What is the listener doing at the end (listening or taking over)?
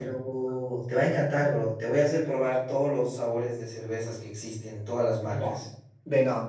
taking over